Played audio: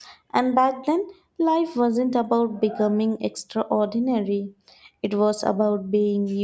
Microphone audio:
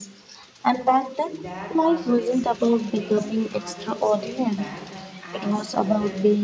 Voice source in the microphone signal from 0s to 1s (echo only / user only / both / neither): echo only